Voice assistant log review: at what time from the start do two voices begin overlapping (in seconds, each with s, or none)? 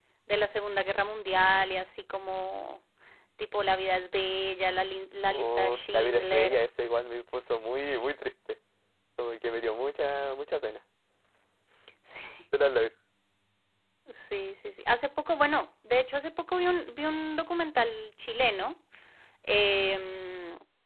5.3 s